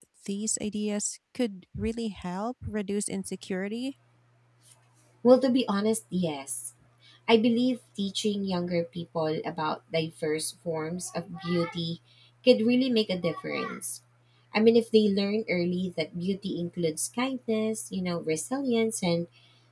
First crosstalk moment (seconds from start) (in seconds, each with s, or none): none